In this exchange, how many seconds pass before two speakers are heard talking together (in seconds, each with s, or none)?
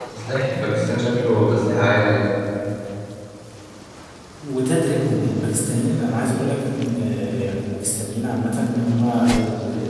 none